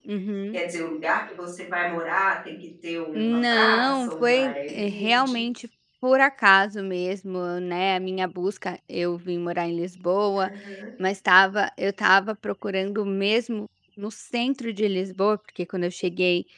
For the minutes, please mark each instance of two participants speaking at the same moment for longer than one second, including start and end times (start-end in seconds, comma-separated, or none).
3.1-5.4